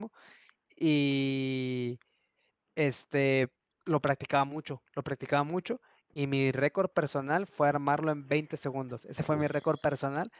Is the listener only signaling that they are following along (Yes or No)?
Yes